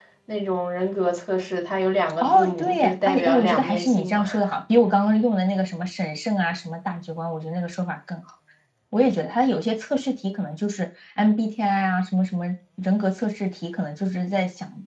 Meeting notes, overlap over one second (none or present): present